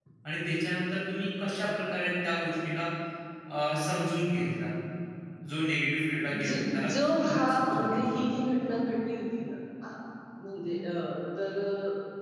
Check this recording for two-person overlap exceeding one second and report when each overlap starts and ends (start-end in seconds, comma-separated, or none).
6.9-8.2